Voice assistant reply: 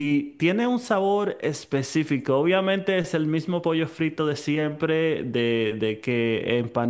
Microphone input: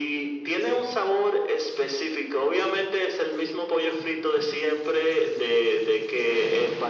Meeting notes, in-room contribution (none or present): none